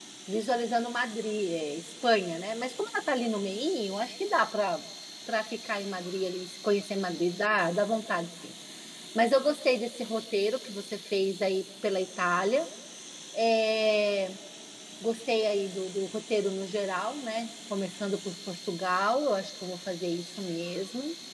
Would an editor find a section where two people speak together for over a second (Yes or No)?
No